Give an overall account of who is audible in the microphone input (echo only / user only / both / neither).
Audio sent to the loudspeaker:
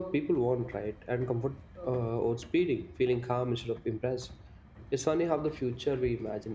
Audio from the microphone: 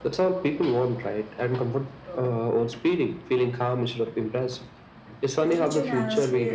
both